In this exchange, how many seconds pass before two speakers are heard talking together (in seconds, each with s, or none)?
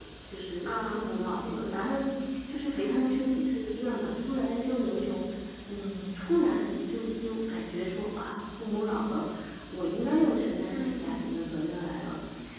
0.6 s